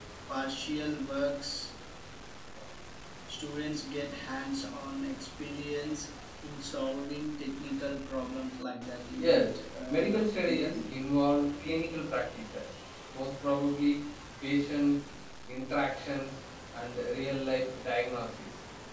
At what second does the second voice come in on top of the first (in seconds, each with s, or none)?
9.2 s